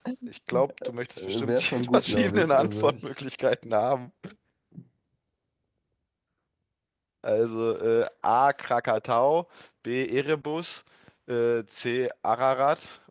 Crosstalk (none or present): present